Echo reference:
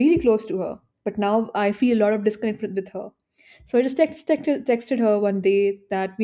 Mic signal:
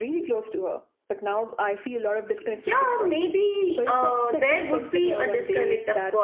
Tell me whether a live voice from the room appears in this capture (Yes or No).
Yes